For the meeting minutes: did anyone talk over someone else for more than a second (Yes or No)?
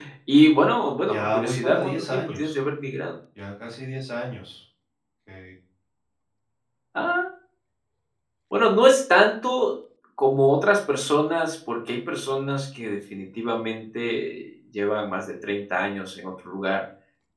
Yes